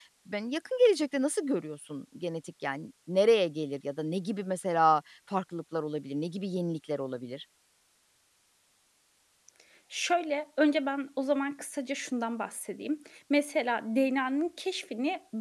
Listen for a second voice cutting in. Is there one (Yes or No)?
No